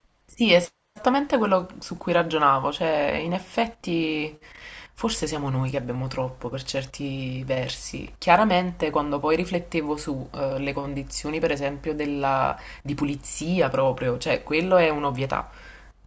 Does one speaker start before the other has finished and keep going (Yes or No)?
No